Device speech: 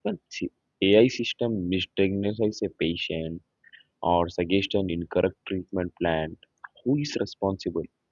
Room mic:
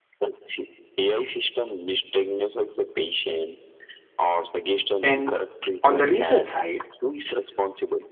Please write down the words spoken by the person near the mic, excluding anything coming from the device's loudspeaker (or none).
And on the research side,